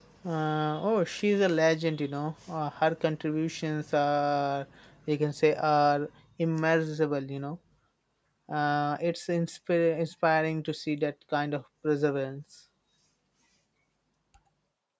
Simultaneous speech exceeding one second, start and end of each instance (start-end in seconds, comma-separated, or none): none